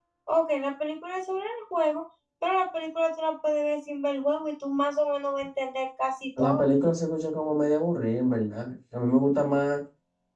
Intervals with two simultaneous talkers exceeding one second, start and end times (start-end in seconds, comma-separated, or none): none